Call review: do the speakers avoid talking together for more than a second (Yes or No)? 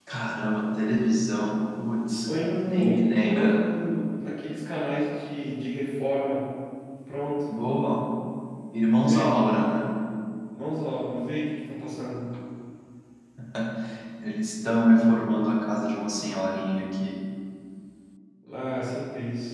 No